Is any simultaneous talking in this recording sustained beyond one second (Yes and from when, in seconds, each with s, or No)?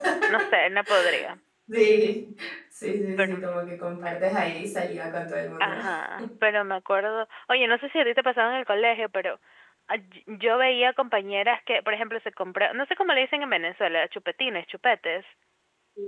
No